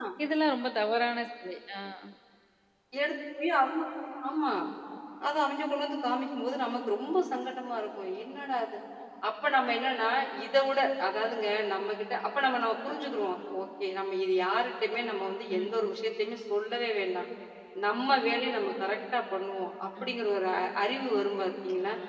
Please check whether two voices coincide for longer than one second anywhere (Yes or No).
No